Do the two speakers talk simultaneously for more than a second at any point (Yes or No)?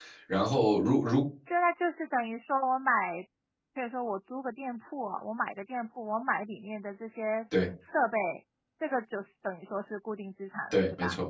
No